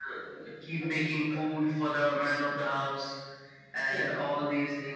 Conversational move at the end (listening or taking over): listening